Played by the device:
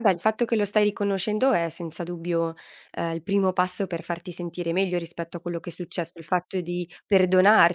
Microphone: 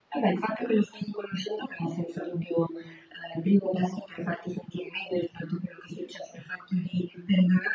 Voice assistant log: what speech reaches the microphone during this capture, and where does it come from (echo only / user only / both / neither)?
echo only